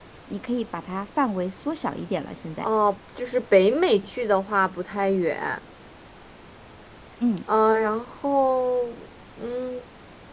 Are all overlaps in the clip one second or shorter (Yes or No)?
Yes